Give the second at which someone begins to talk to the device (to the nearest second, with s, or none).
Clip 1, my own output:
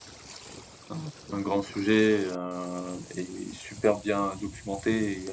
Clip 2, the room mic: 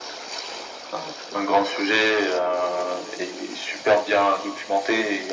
none